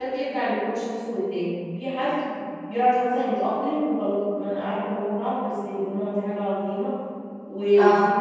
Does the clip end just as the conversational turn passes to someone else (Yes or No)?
No